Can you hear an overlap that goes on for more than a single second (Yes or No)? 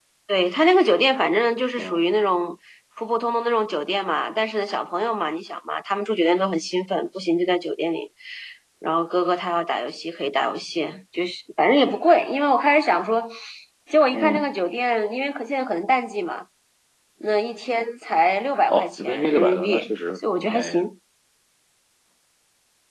Yes